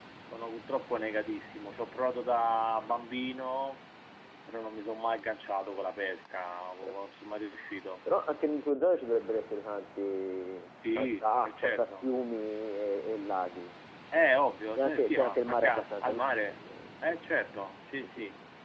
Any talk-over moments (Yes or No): Yes